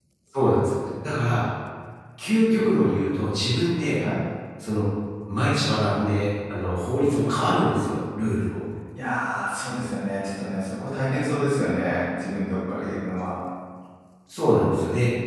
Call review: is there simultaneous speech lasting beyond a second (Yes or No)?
No